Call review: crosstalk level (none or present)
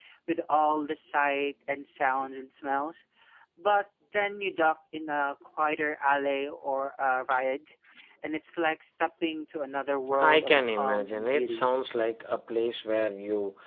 present